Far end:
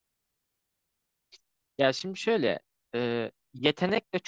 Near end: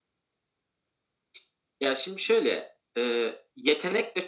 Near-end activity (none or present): none